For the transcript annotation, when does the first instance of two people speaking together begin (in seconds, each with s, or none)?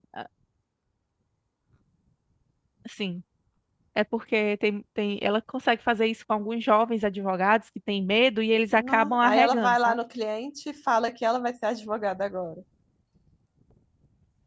8.7 s